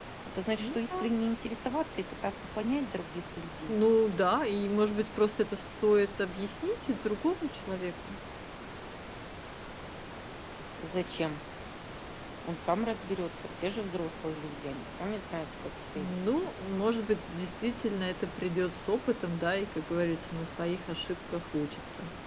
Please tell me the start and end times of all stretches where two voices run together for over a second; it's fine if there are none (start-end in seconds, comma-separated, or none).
none